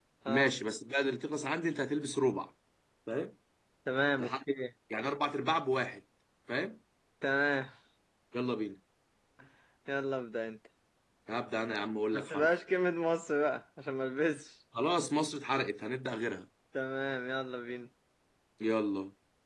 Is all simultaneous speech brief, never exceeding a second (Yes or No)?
Yes